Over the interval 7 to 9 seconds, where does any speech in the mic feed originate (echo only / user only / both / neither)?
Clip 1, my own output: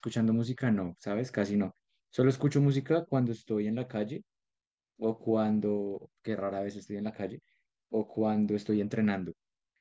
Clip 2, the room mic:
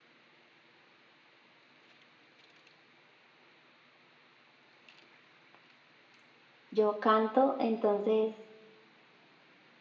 user only